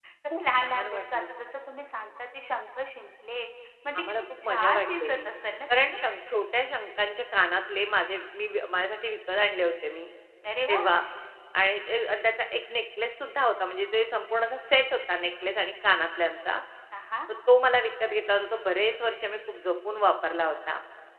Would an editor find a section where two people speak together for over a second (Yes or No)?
Yes